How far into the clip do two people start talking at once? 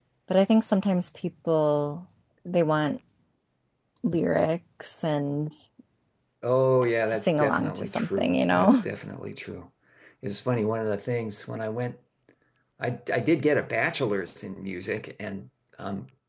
7 s

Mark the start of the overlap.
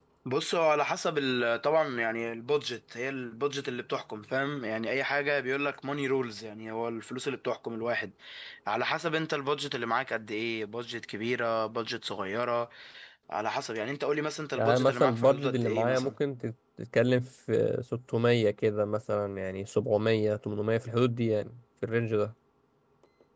15 s

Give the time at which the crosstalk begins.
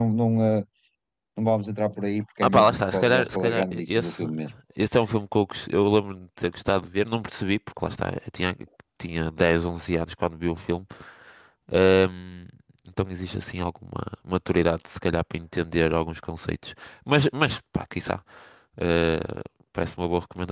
2 s

